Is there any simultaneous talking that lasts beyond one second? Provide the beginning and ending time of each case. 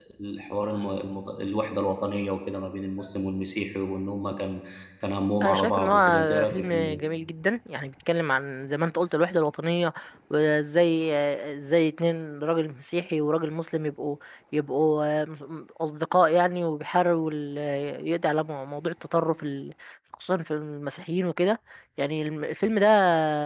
5.4-7.0

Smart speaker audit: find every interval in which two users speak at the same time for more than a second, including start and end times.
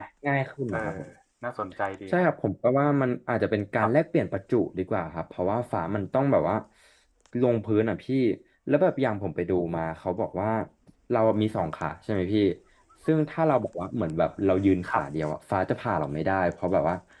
none

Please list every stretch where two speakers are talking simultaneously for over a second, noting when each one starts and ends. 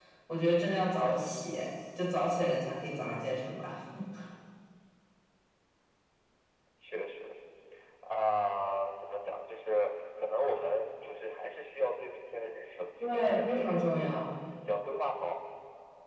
13.0-14.2

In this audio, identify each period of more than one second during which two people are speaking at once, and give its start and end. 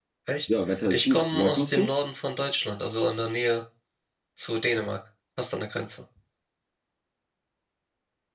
0.6-1.9

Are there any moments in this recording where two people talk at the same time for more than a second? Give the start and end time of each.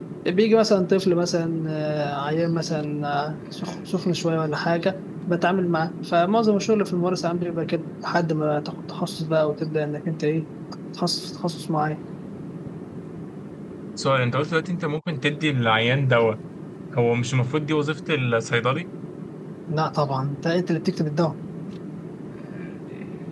none

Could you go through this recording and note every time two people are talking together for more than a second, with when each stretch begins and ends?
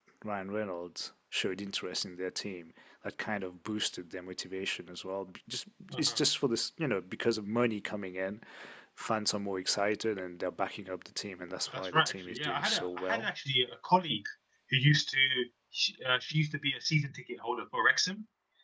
11.7-13.3

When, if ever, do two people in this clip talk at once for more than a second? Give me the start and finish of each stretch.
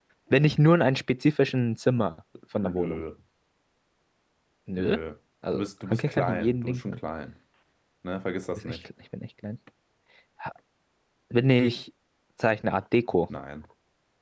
5.5-7.0

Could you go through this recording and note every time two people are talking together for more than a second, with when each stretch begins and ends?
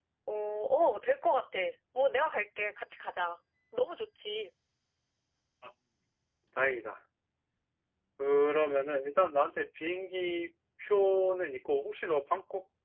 none

